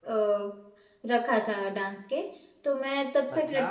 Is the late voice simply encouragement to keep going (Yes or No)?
Yes